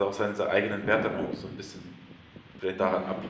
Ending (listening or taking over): taking over